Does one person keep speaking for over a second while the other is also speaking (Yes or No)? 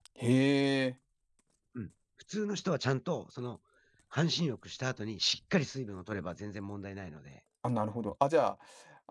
No